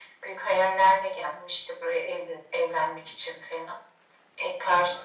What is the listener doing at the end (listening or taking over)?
taking over